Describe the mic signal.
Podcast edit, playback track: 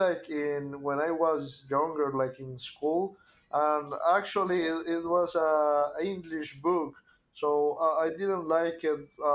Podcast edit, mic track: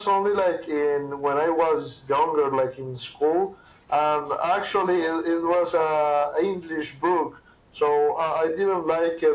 echo only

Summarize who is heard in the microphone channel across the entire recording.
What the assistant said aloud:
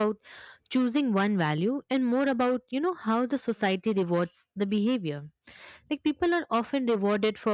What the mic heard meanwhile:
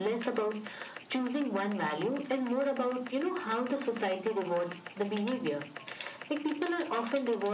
echo only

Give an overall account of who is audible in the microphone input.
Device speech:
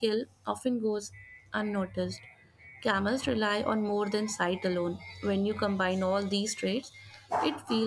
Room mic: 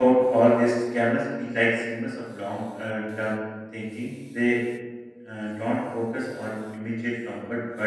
user only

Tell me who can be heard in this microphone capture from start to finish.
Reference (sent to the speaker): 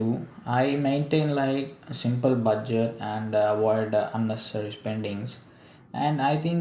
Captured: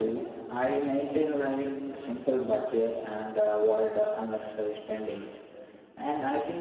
echo only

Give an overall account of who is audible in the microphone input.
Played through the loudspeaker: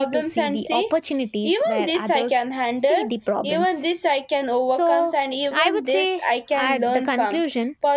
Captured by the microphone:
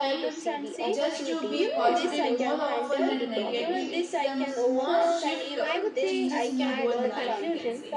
both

